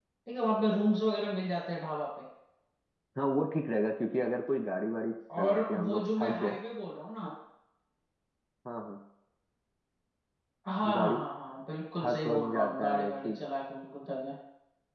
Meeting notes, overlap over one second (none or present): present